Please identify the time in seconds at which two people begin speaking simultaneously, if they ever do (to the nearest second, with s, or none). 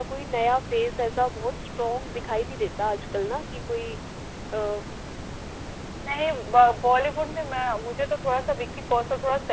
none